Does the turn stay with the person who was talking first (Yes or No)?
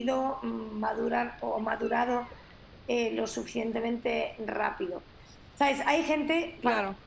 Yes